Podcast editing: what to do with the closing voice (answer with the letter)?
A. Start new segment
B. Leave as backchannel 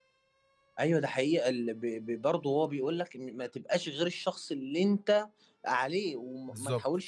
B